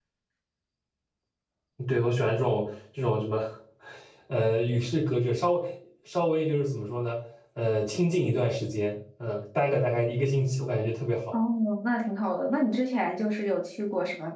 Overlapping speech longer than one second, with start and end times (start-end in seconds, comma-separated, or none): none